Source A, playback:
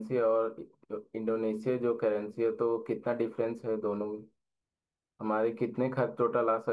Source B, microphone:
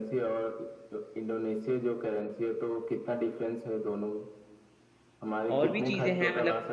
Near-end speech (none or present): present